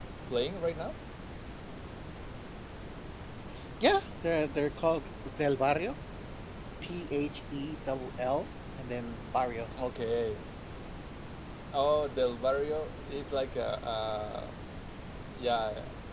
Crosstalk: none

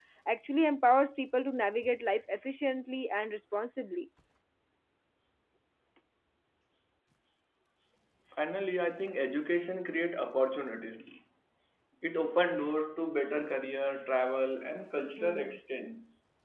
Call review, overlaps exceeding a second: none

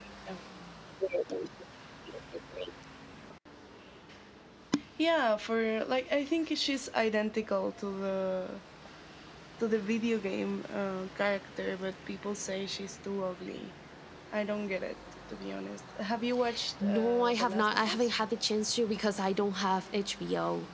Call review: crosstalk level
present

